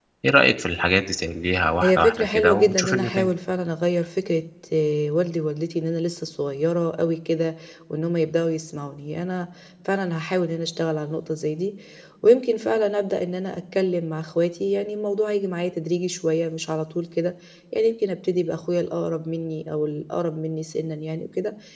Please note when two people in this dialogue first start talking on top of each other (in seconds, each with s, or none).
1.8 s